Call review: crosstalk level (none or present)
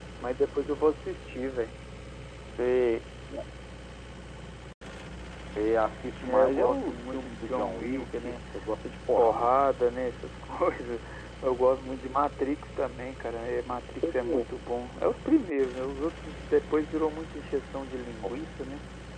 present